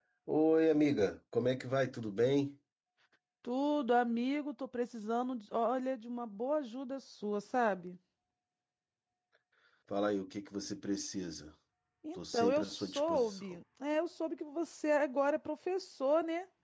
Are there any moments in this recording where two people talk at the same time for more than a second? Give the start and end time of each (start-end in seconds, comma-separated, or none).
12.1-13.4